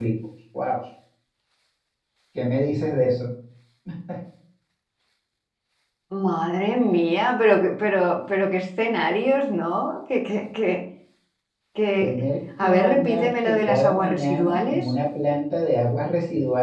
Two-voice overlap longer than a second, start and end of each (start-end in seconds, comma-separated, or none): 12.6-14.8